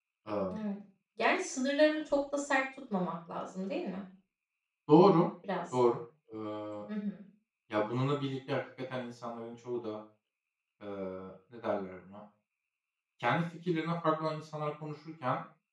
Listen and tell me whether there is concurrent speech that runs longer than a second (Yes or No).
No